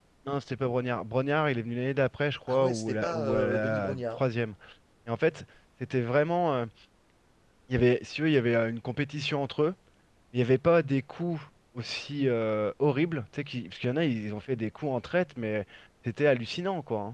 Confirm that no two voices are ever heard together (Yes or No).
No